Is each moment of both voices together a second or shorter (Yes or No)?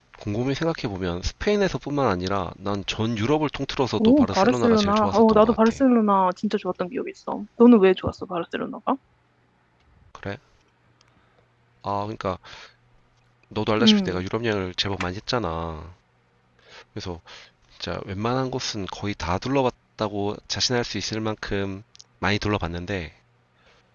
No